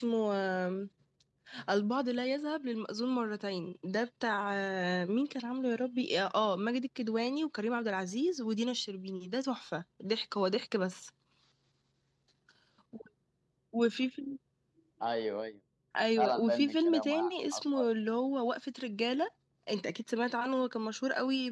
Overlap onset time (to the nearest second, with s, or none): 16 s